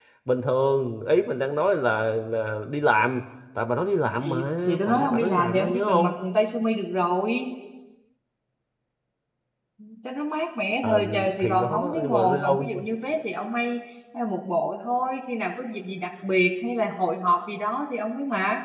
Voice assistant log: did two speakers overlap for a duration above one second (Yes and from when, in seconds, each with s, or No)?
Yes, from 4.2 s